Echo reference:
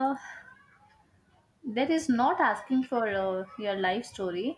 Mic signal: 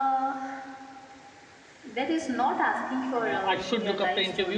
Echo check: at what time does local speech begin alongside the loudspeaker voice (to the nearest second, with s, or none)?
3 s